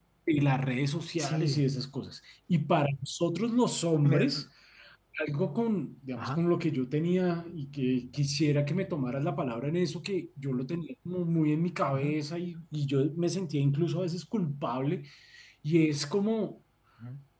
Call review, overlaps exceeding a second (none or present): none